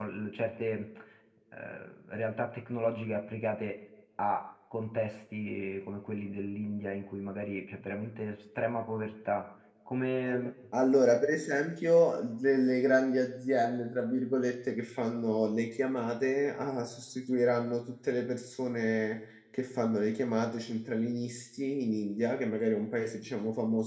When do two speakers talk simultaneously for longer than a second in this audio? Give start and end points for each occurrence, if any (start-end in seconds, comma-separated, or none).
none